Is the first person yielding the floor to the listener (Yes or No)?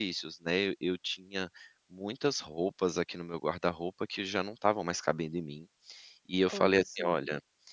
No